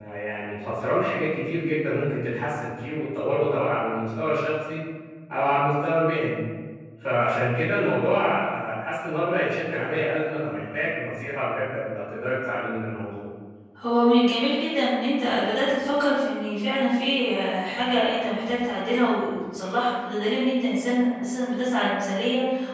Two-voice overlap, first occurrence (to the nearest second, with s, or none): none